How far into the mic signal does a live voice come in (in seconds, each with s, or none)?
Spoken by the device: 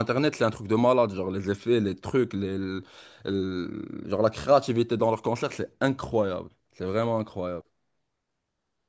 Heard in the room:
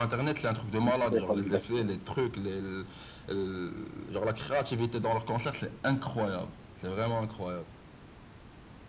0.8 s